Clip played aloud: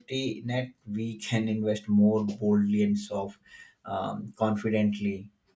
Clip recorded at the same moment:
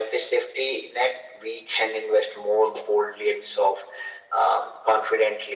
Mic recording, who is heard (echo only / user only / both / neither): echo only